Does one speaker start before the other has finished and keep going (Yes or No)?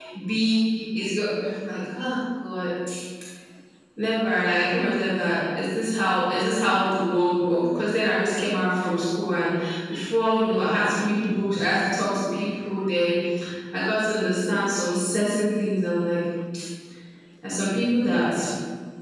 No